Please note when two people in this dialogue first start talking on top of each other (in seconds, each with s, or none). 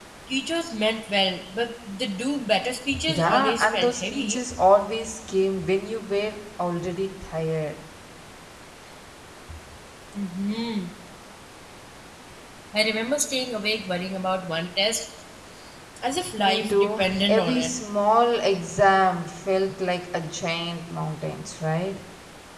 3.0 s